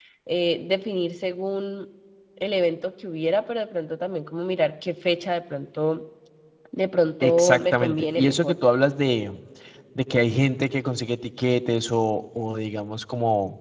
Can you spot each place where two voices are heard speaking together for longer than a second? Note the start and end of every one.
7.2-8.6

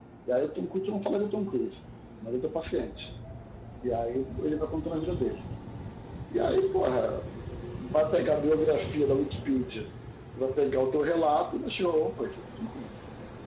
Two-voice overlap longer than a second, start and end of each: none

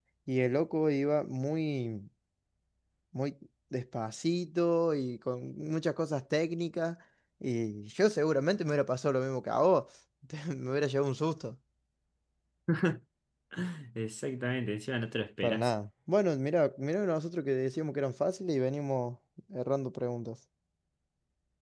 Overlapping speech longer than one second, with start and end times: none

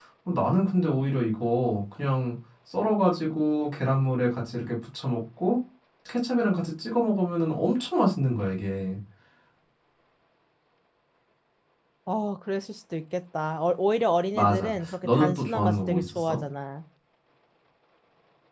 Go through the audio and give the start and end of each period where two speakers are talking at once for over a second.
14.3-16.4

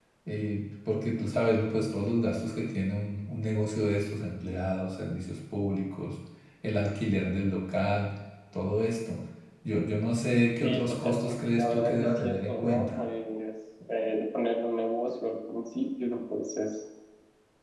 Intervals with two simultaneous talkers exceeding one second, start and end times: 10.6-13.0

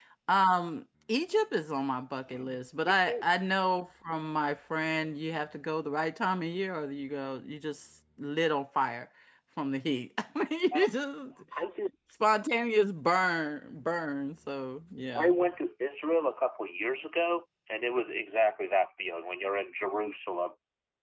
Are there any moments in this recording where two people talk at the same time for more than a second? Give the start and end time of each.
none

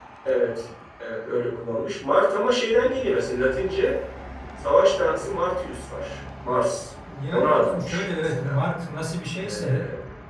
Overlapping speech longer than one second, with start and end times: 7.3-8.6

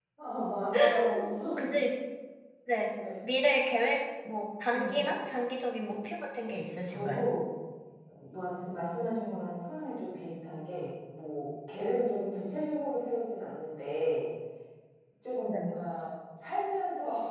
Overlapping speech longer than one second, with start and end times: none

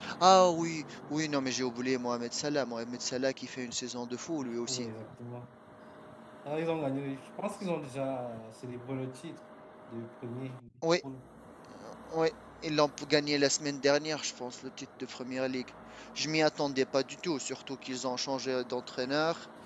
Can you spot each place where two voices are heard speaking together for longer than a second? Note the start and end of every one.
none

